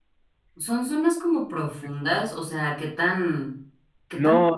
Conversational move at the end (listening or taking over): taking over